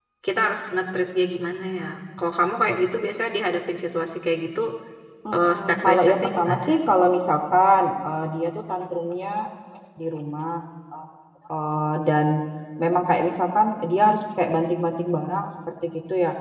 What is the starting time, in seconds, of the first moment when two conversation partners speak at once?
5.3 s

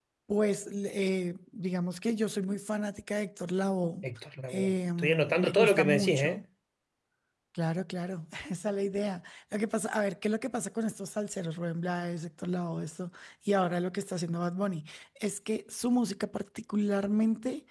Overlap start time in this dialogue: 4.5 s

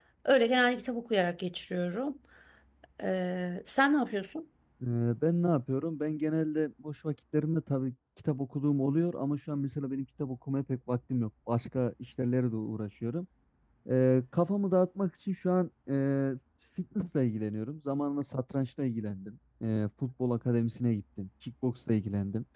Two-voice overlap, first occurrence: none

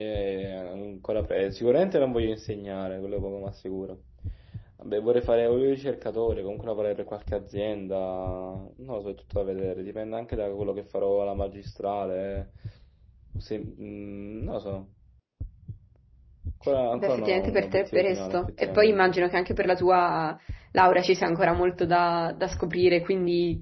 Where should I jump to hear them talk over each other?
17.0 s

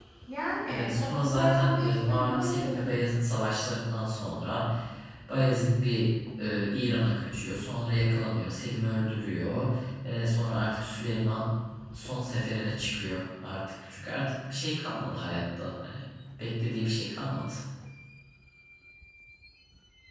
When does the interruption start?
0.7 s

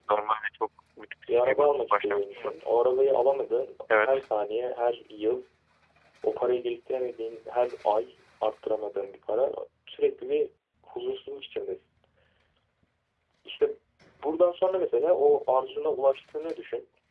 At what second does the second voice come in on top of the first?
1.3 s

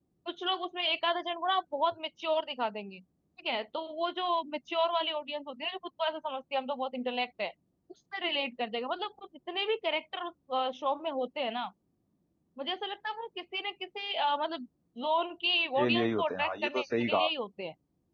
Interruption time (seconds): 15.8 s

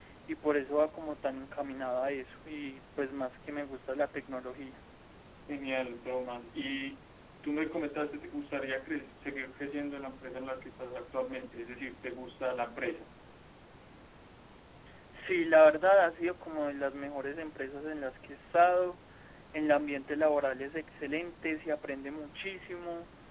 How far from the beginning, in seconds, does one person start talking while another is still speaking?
none

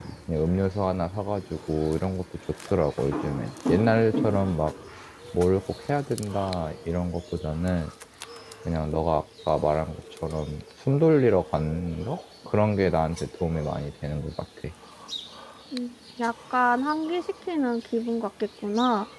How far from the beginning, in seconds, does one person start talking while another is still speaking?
none

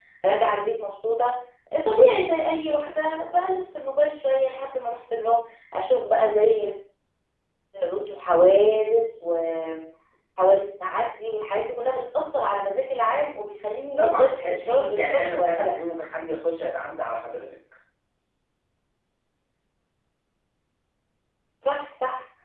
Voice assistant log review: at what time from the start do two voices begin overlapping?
14.0 s

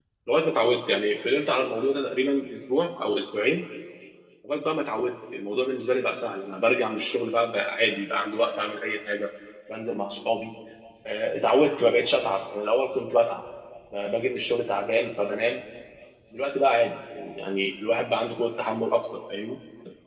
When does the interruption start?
none

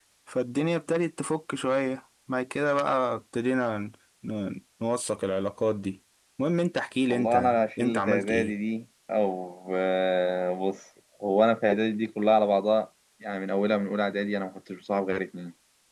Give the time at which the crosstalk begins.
7.1 s

